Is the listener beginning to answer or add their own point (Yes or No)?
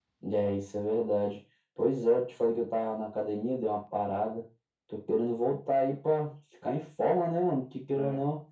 No